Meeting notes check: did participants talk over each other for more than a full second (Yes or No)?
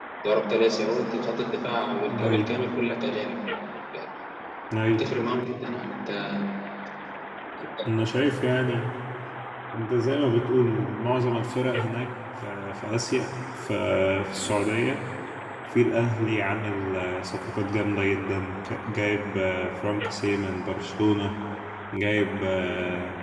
No